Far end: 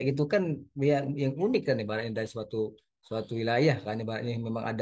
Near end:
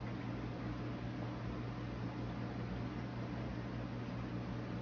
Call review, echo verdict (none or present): none